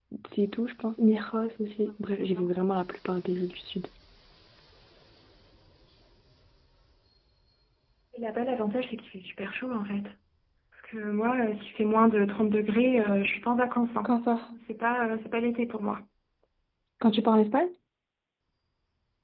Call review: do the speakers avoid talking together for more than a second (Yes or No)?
Yes